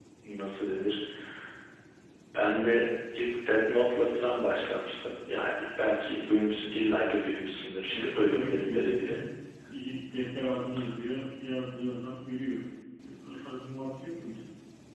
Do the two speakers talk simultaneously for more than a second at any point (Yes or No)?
Yes